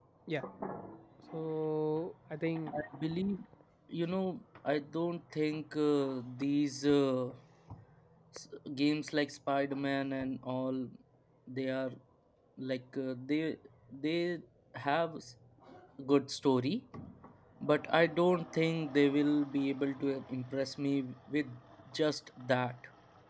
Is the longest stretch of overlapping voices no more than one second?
Yes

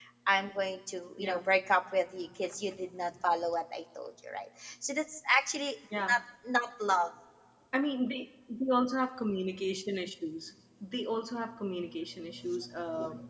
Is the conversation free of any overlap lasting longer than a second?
Yes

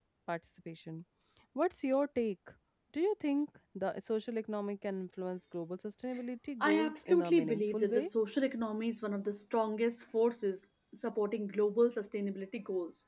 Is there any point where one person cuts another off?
Yes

